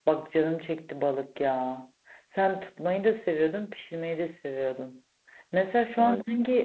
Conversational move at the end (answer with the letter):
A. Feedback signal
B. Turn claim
A